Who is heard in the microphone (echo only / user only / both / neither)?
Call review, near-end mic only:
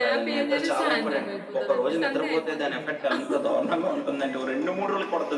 both